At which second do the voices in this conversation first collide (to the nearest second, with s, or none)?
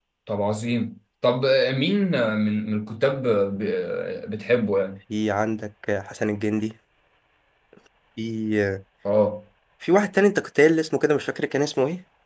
none